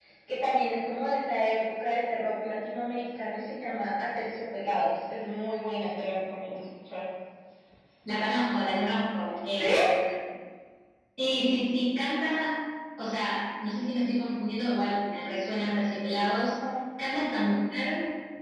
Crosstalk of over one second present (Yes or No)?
No